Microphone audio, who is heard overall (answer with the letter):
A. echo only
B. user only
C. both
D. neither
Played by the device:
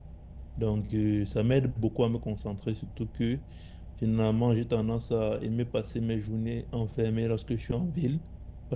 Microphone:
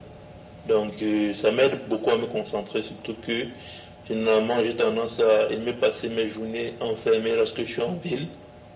A